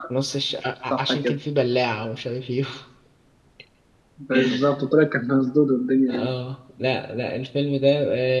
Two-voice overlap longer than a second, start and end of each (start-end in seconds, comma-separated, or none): none